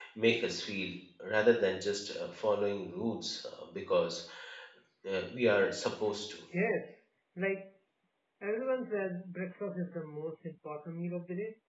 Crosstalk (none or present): none